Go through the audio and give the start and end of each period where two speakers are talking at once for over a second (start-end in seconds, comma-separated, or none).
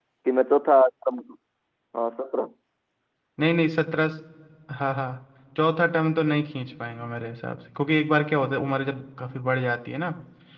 none